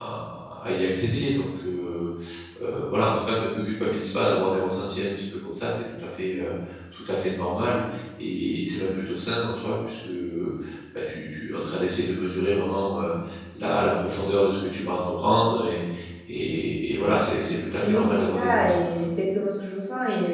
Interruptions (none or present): present